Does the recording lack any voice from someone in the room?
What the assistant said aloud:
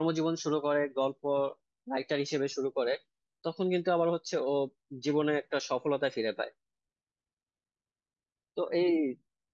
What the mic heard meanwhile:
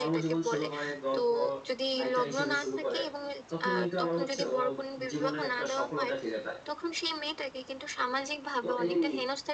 No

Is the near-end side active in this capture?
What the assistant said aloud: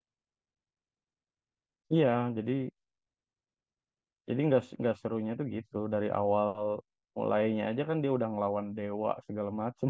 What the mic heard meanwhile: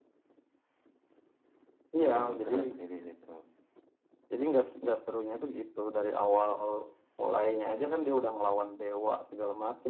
Yes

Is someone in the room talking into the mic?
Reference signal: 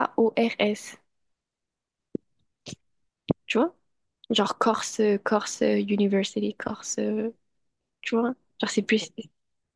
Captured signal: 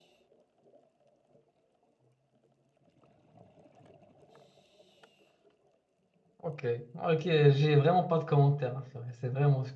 Yes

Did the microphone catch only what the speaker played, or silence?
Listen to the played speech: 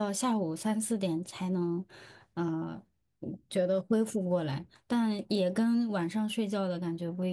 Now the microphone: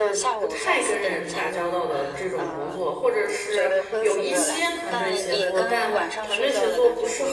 No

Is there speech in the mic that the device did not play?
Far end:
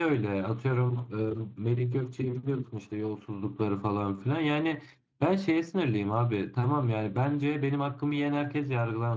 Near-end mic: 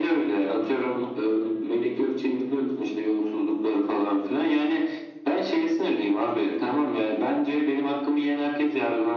No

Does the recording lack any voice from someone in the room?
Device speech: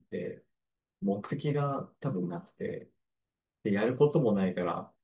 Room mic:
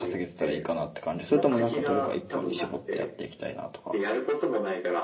No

